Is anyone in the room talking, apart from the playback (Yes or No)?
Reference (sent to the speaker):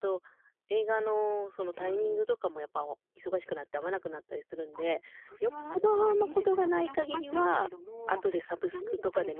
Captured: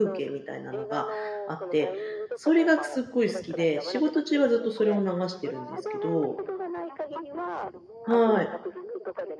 Yes